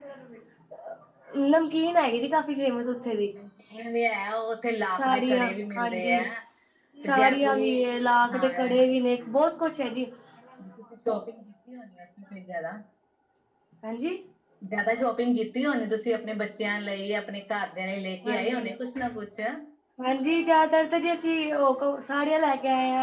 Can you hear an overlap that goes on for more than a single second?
Yes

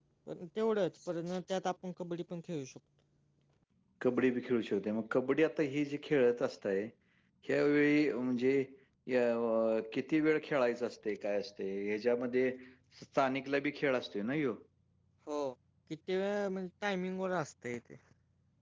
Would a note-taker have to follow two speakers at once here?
No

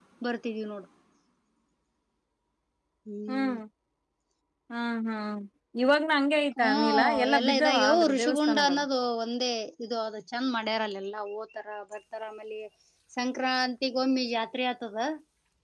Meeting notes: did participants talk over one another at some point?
Yes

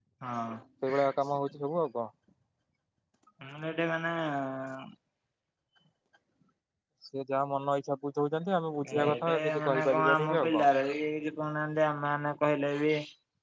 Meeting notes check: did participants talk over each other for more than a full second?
Yes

